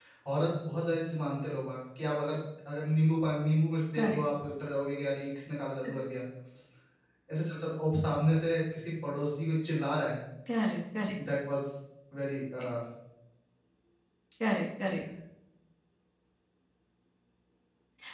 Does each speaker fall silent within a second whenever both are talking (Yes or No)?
Yes